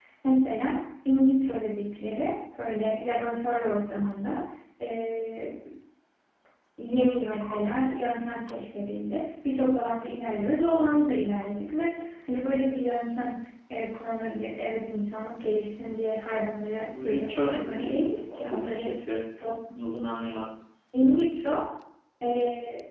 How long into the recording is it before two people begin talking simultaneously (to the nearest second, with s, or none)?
17 s